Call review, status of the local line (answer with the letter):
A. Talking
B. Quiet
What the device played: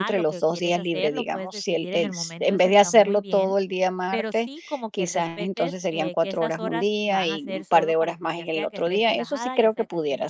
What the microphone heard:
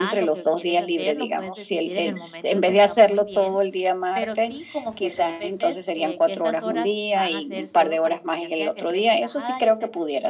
B